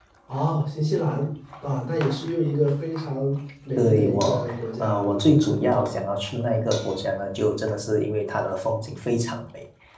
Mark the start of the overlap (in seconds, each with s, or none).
3.8 s